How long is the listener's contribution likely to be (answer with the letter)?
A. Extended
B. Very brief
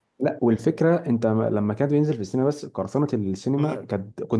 B